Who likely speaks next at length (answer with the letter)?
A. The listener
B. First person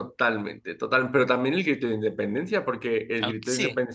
B